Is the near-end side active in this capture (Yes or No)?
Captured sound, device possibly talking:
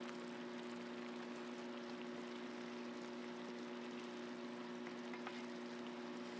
No